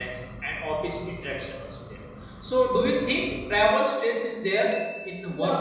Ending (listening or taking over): taking over